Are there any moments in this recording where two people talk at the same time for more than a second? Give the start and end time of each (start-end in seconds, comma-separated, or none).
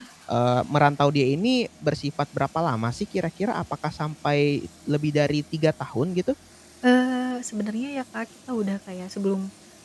none